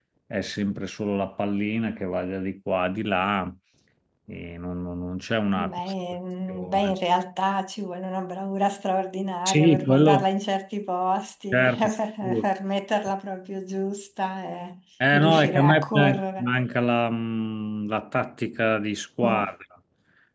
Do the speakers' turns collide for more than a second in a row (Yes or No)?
Yes